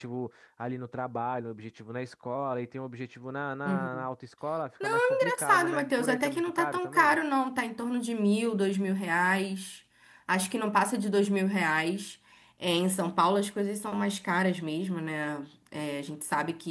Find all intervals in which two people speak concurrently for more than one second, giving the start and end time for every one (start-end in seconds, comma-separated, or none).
4.8-7.2